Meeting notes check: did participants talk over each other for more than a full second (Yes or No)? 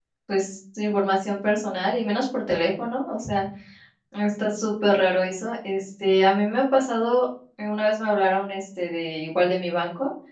No